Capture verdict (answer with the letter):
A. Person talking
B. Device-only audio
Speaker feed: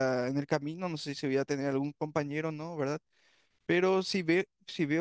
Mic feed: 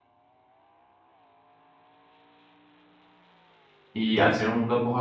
A